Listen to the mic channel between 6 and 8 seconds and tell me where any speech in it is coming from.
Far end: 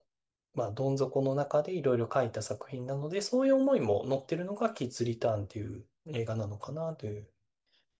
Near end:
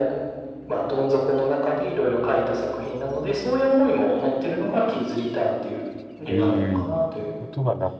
both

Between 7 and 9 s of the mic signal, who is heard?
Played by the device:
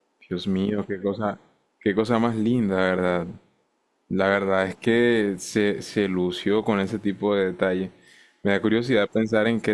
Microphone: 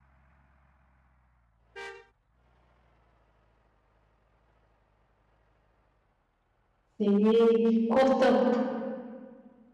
user only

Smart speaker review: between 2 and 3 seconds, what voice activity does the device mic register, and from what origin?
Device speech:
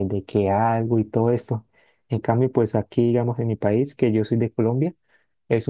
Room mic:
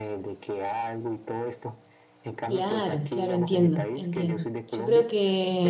both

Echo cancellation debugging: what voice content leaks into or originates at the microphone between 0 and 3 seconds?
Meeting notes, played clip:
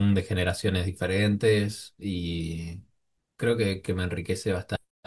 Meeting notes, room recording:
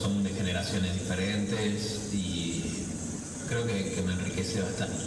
echo only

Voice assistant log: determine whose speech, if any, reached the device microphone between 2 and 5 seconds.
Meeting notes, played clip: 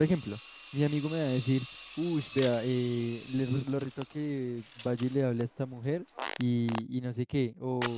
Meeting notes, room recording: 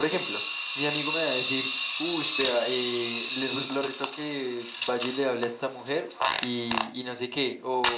echo only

